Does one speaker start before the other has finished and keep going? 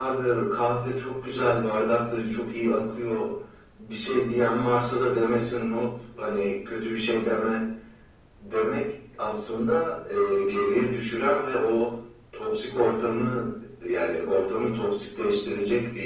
No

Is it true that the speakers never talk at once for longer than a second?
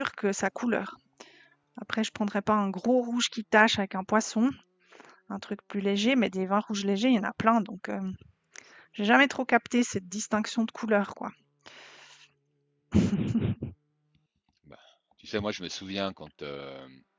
Yes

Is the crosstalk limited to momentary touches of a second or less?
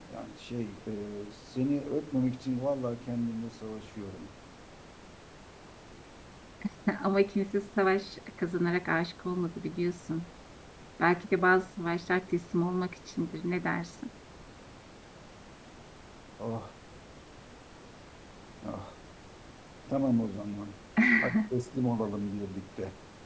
Yes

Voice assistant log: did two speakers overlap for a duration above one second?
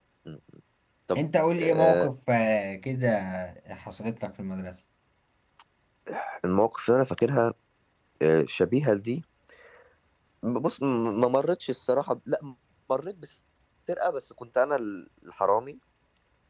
No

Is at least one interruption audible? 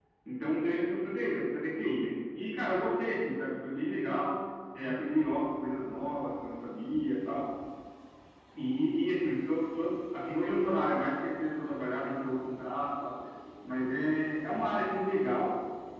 No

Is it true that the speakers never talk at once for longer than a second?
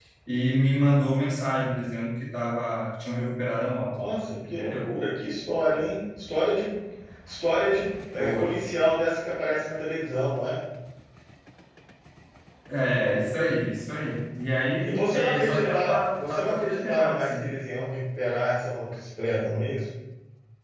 No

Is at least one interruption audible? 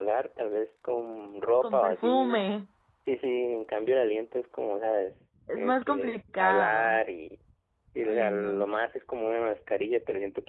Yes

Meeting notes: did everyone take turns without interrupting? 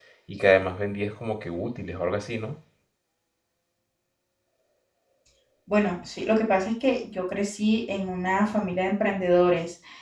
Yes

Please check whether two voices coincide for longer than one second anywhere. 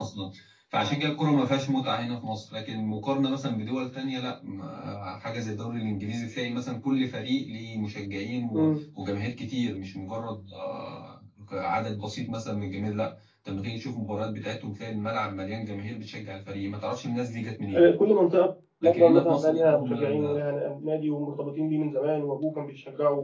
Yes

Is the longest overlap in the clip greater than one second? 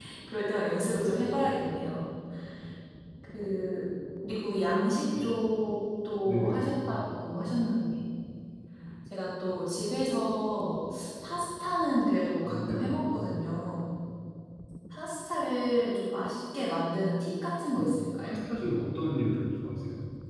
No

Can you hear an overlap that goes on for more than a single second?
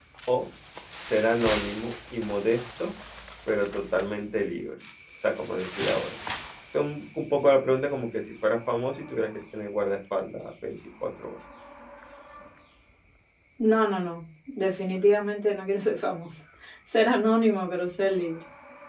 No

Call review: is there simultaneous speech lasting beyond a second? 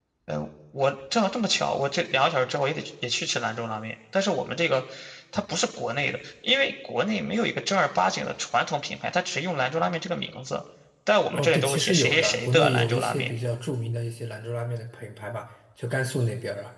Yes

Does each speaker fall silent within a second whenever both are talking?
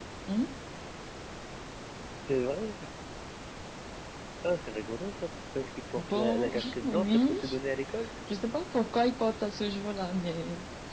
No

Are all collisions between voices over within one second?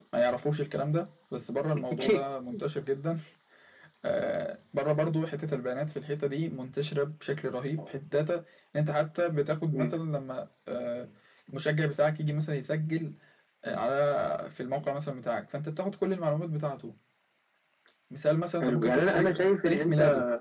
No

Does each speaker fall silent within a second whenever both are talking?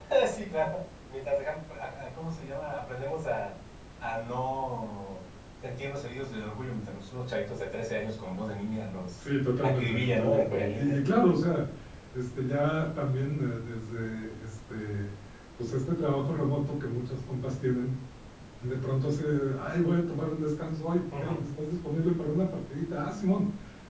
No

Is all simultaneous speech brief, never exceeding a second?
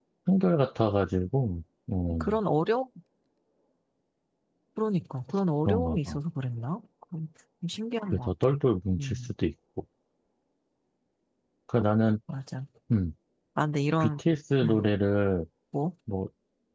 Yes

